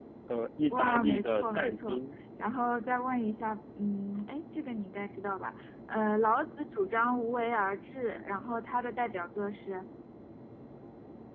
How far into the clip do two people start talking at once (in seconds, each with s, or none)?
0.7 s